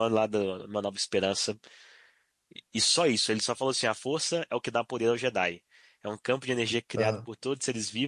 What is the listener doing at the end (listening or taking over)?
listening